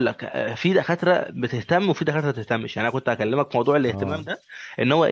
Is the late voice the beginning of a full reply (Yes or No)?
No